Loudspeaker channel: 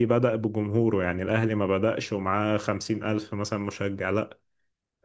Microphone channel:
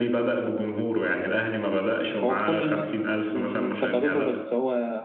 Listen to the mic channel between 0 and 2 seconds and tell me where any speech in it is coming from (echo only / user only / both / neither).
echo only